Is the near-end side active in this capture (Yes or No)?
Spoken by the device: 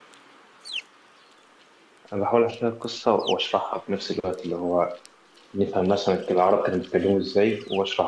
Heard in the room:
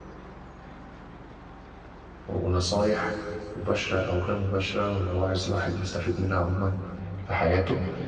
Yes